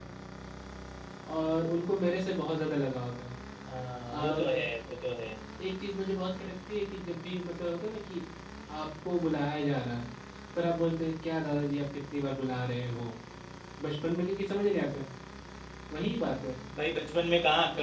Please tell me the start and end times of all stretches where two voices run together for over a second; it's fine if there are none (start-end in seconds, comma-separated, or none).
none